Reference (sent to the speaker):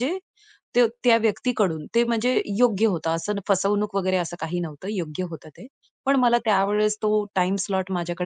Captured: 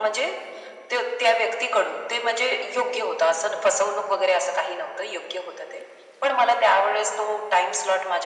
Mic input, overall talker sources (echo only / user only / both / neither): echo only